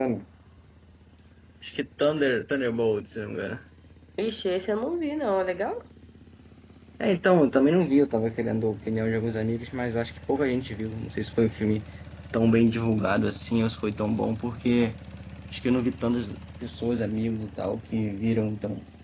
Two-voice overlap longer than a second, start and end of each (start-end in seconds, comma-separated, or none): none